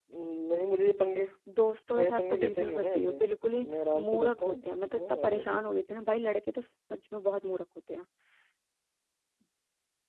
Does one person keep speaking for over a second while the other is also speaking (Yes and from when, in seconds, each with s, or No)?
Yes, from 1.9 s